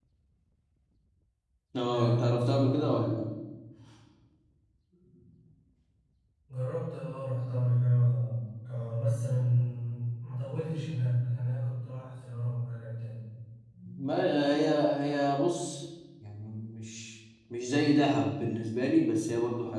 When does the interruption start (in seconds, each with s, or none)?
1.9 s